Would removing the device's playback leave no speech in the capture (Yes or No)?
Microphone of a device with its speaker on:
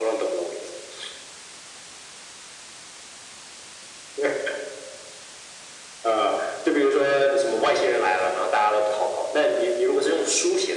Yes